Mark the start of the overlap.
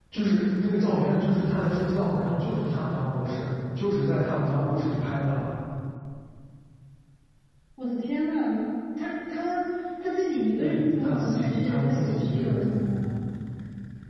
10.6 s

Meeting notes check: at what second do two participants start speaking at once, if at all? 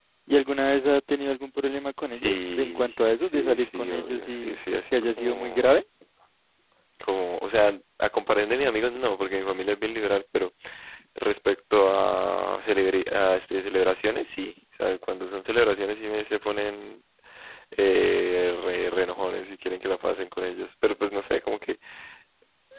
2.1 s

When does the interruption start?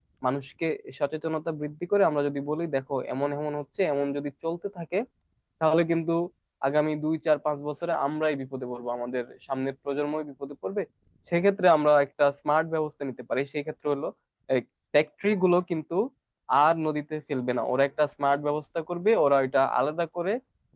none

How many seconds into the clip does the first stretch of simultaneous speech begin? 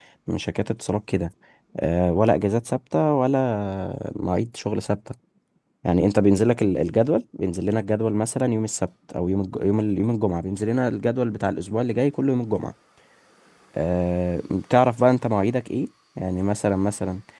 none

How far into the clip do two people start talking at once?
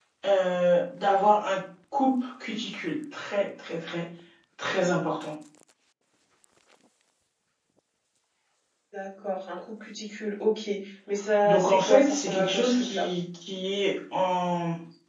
11.4 s

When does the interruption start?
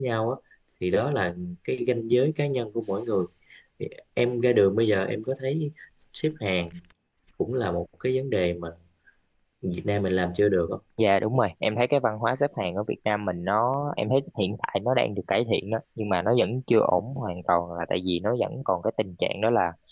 none

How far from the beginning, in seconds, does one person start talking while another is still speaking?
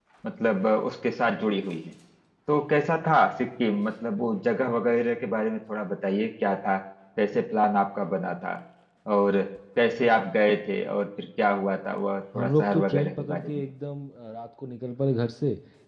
12.3 s

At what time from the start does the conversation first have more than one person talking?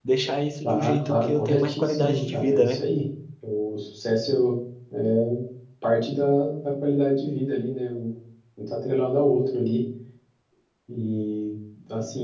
0.6 s

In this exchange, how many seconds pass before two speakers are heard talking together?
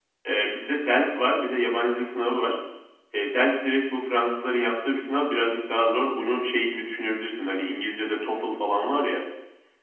none

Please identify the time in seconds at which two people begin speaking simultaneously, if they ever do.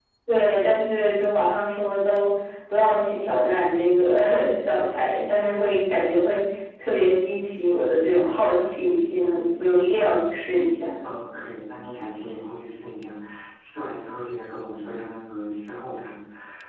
none

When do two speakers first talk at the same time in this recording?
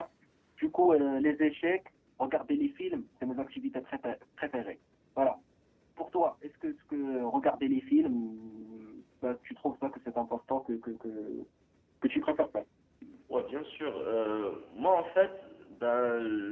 none

